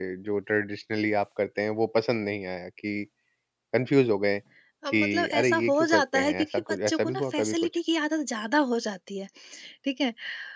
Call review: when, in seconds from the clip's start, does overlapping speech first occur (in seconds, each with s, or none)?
4.9 s